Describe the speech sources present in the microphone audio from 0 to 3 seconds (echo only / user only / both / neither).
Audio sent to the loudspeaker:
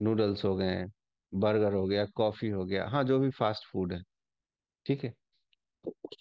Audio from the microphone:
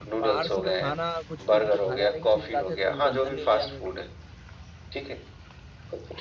both